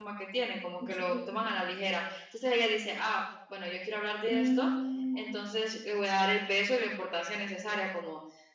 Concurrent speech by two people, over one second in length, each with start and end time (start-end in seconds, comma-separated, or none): none